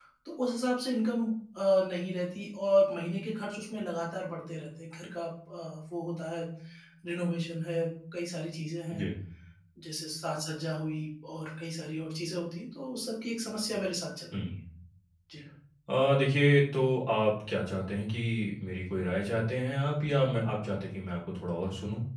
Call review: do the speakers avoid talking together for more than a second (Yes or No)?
Yes